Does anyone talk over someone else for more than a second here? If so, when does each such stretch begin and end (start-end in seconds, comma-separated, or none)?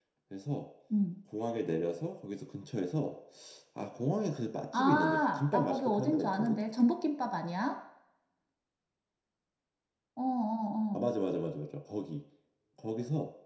4.7-6.6